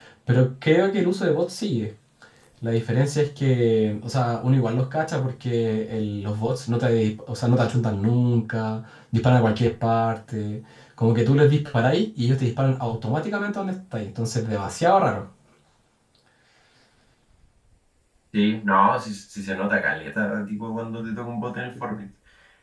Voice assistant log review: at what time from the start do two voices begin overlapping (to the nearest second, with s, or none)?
none